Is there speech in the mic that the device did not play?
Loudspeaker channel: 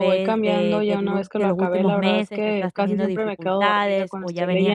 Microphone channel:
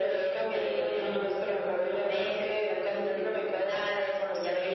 No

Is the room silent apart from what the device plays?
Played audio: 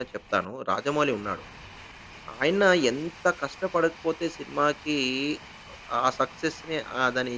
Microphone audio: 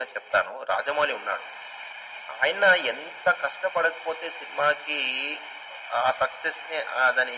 Yes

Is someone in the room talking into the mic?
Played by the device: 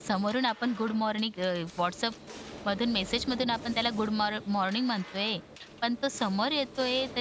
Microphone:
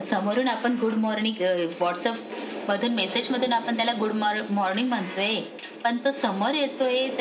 No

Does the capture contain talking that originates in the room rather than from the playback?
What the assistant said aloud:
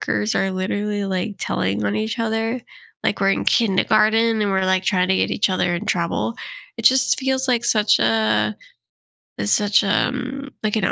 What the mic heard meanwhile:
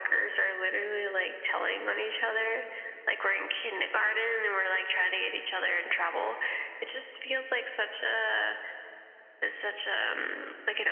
No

